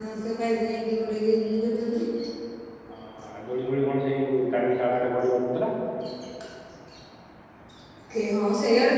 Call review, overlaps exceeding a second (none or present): none